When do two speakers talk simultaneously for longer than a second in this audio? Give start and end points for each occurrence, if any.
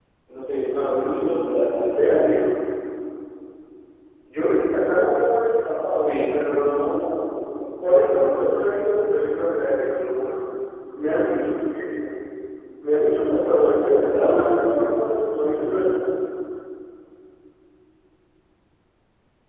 0.8-2.0

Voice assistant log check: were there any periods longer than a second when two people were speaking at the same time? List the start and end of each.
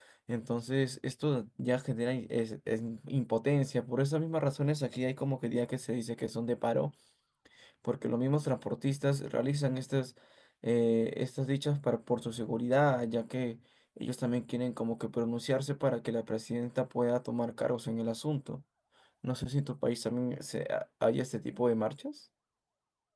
none

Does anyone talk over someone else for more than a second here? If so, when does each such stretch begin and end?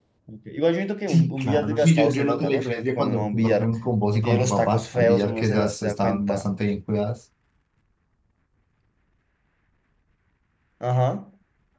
1.1-3.7, 4.2-6.4

